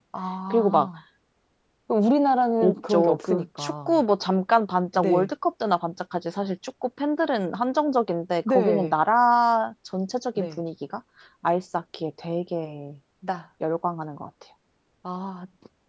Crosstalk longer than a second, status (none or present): present